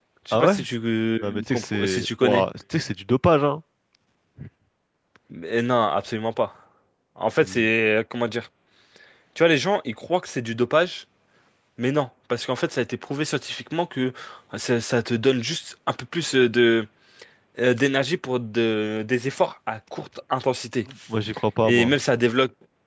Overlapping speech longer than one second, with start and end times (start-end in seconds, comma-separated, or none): 1.2-2.5